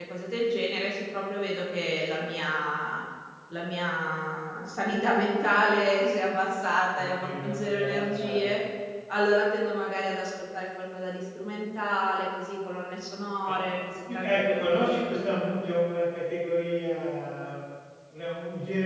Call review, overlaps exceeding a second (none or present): present